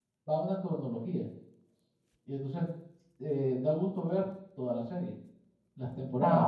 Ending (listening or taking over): listening